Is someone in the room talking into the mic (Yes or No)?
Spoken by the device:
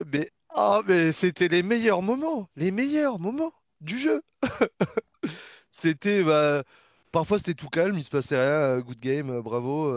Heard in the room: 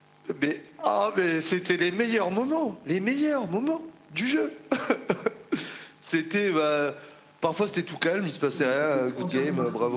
Yes